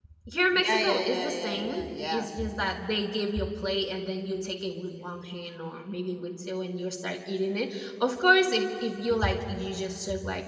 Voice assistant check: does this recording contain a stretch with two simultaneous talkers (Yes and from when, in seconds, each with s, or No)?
Yes, from 0.5 s